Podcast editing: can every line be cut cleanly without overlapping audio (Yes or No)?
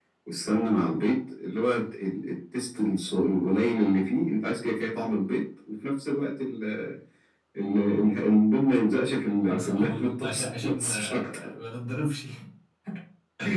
No